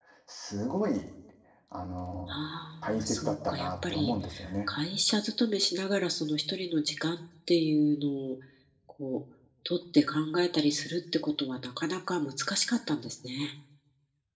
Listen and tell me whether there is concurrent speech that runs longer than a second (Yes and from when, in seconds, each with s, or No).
Yes, from 2.8 s